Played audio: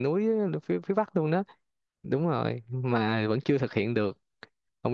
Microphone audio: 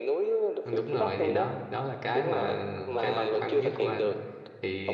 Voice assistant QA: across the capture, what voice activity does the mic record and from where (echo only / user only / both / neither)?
both